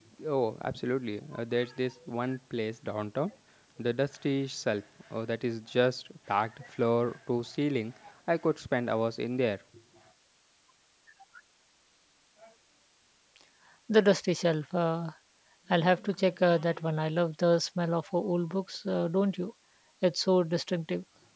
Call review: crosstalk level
none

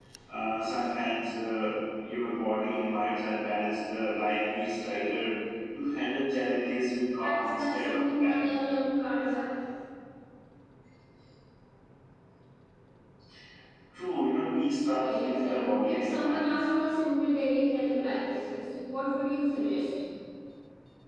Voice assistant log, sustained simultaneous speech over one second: present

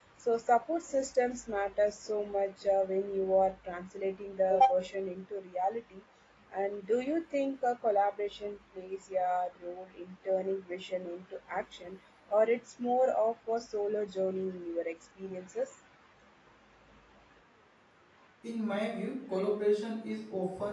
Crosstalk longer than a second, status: none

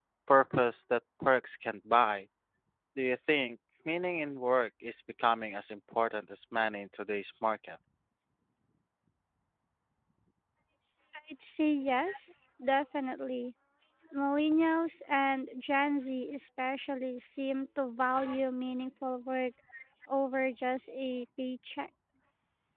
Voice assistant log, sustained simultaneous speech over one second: none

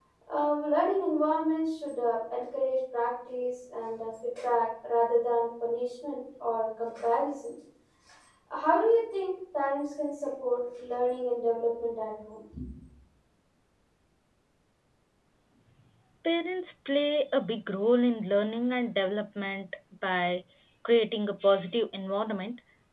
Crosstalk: none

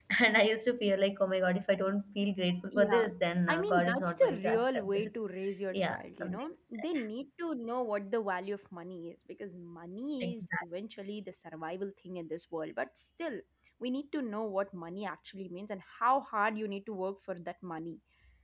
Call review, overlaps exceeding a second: present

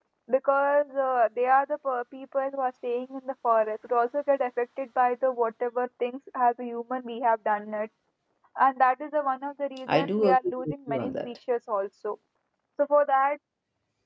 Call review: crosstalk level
present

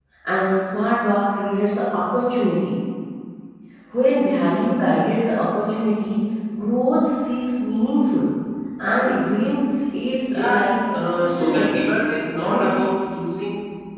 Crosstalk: present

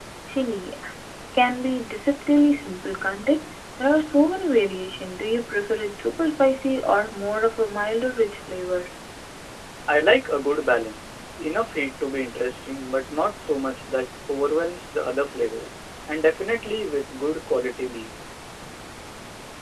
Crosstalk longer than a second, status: none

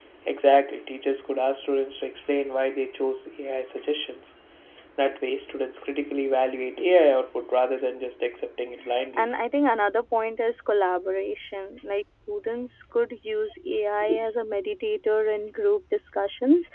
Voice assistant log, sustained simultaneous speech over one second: none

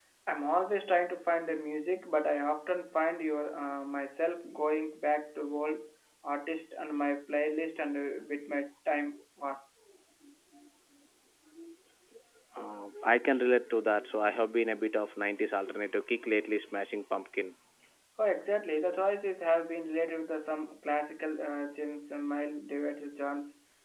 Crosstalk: none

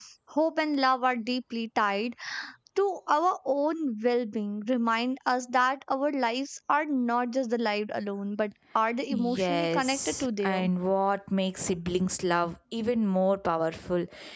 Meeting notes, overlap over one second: present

